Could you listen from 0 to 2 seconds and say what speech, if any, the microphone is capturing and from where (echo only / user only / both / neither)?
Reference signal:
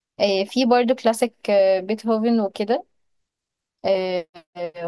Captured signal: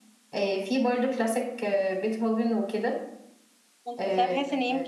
echo only